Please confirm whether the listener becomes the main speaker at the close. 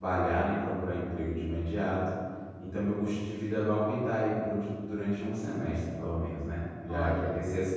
No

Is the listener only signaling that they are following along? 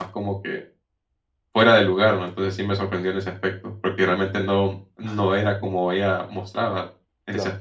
No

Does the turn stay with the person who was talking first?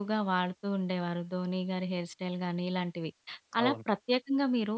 Yes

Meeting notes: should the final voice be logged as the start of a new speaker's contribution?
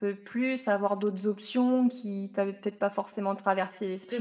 Yes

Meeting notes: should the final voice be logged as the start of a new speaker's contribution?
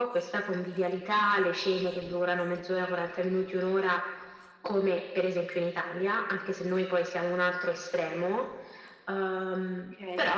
Yes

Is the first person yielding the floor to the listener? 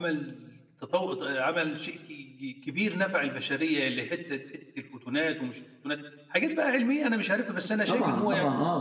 Yes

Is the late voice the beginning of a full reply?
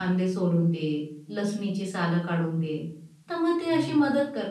No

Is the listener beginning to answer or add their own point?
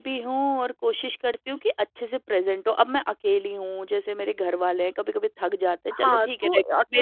Yes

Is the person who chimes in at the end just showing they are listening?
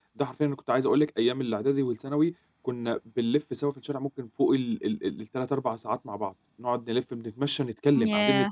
Yes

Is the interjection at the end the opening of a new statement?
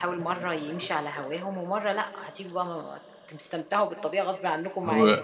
Yes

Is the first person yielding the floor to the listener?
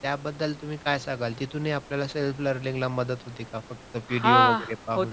Yes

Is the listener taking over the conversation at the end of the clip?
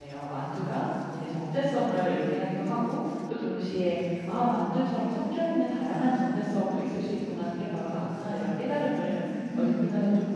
No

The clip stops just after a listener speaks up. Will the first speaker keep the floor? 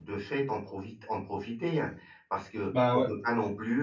Yes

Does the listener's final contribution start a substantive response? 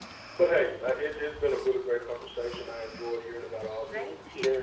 No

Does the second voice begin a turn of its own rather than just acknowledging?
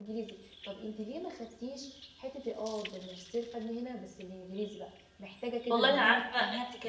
Yes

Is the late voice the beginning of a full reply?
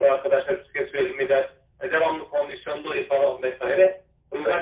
No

